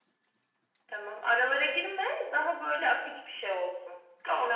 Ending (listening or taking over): taking over